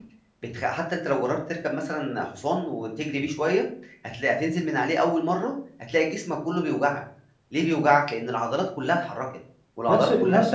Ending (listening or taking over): taking over